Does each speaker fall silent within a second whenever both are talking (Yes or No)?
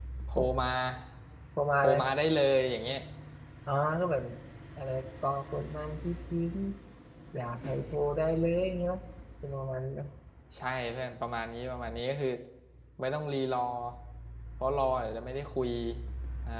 Yes